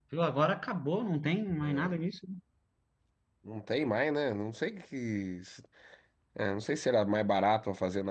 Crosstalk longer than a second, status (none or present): none